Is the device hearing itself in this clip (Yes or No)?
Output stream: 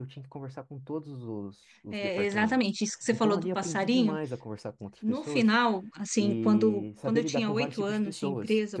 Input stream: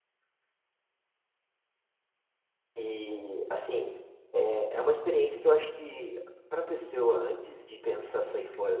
No